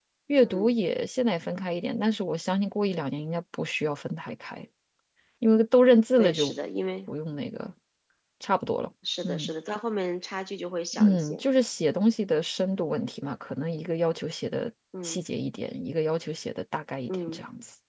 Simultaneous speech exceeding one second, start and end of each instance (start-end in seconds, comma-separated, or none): none